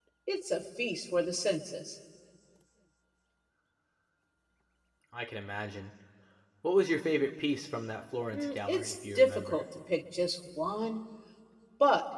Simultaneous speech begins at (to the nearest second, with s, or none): 8 s